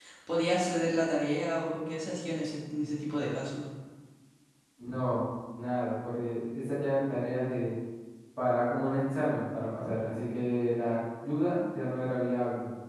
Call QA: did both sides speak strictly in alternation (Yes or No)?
Yes